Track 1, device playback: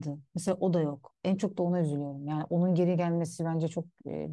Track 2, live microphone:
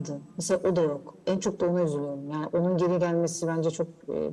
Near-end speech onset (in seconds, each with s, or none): none